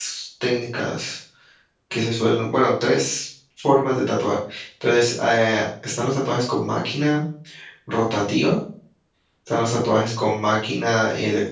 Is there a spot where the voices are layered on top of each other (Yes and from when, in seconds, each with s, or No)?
No